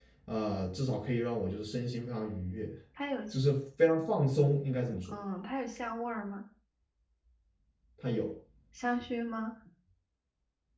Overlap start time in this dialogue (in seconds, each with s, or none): none